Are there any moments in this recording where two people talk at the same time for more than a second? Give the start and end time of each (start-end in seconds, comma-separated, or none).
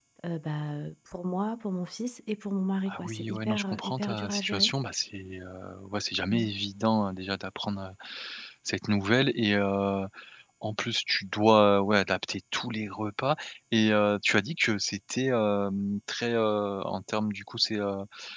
2.9-4.7